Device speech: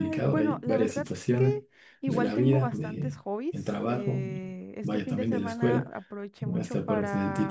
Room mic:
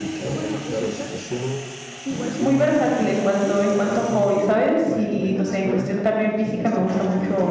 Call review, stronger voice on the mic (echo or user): user